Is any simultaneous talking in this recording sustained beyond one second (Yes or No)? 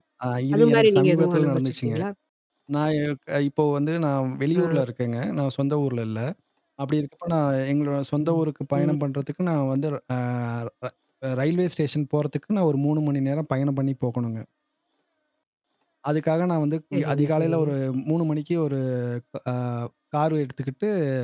Yes